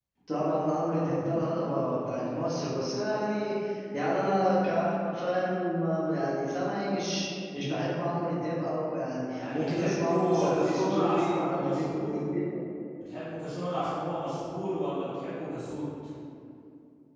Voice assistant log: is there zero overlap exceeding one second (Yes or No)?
No